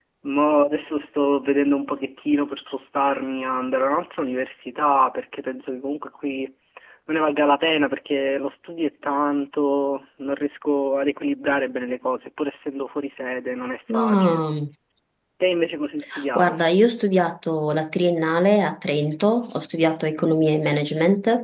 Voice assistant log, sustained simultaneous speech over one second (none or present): none